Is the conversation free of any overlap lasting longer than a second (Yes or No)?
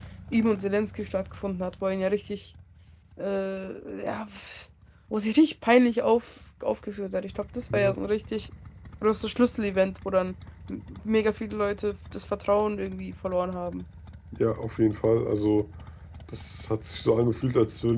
Yes